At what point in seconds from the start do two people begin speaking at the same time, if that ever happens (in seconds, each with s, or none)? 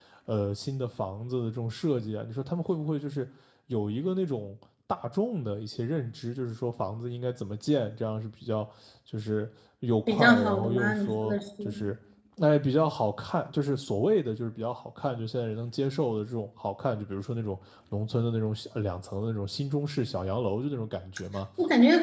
10.1 s